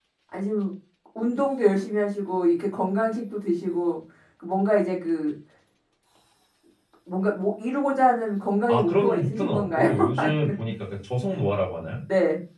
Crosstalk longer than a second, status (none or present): present